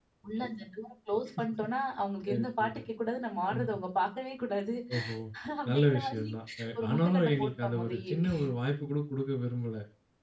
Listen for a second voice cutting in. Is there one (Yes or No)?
Yes